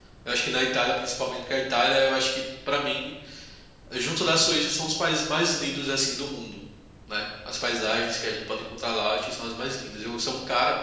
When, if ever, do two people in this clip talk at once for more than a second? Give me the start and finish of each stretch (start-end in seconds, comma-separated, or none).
none